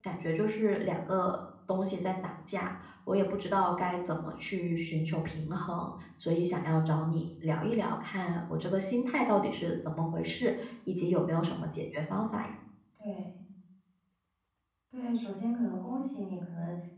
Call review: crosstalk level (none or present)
none